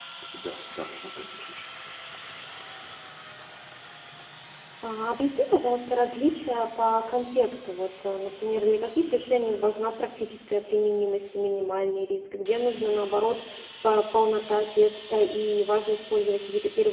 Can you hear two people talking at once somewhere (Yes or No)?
No